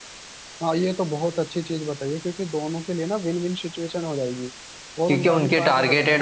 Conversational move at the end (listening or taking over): taking over